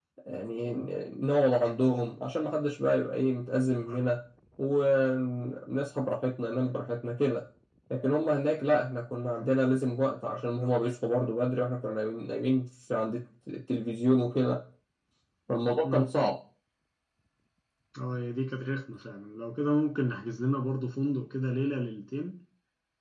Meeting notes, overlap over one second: none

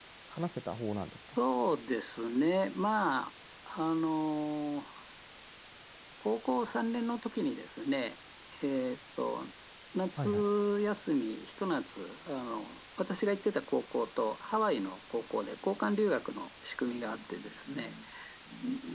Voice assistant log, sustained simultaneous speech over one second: none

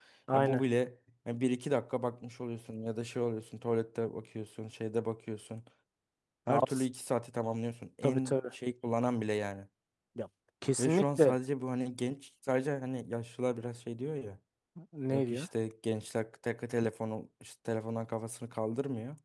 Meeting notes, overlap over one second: none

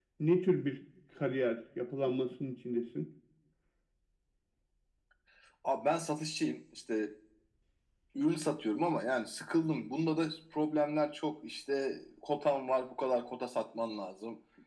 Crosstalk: none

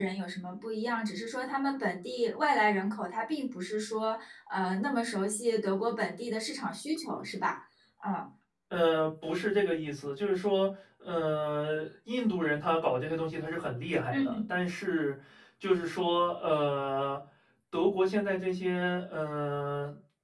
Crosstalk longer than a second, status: none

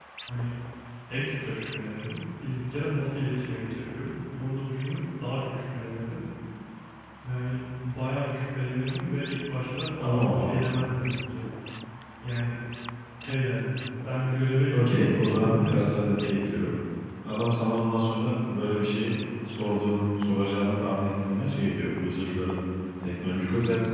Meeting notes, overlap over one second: present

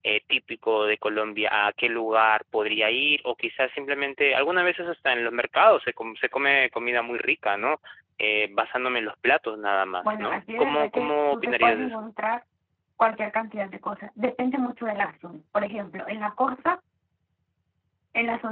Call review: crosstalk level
present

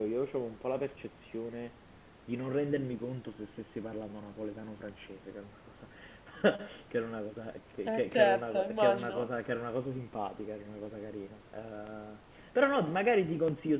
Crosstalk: present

